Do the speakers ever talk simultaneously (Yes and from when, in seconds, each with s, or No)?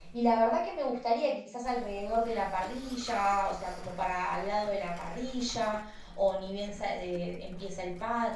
No